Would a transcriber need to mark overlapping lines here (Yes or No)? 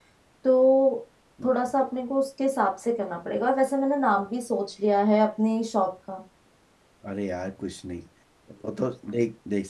No